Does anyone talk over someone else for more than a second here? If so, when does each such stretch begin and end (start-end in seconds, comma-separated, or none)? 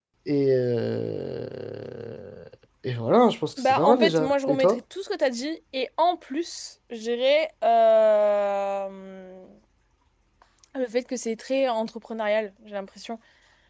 3.6-4.8